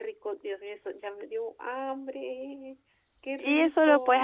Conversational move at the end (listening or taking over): taking over